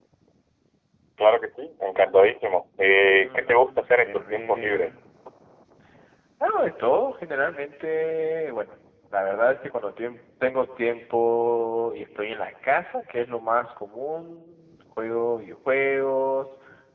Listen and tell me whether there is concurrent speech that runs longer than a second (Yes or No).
Yes